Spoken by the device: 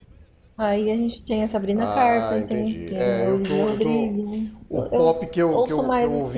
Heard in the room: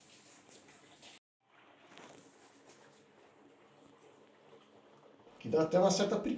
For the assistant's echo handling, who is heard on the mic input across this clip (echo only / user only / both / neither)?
user only